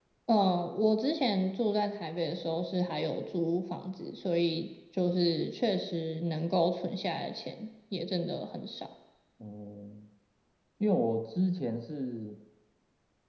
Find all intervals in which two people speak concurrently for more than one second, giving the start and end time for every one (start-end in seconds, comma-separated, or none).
none